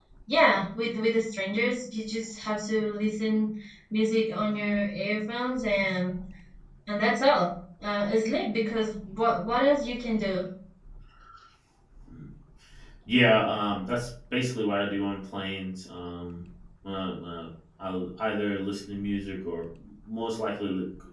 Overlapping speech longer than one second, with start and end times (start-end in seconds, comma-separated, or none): none